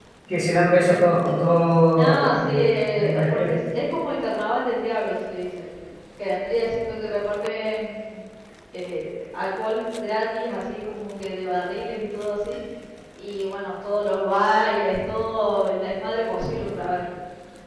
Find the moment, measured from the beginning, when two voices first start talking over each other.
1.9 s

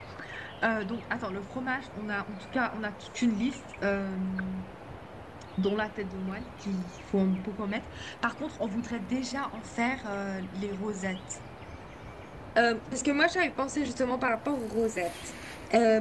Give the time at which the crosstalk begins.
none

